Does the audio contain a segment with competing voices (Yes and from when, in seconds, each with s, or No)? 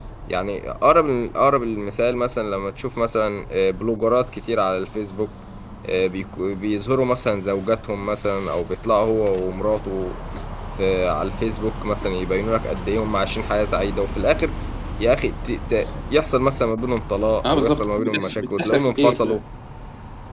Yes, from 17.4 s